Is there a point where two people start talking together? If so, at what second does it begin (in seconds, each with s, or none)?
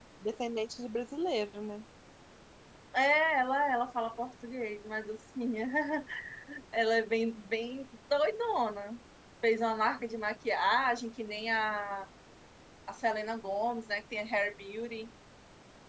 none